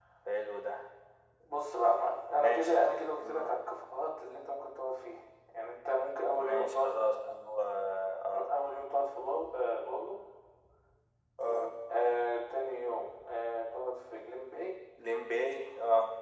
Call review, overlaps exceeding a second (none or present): none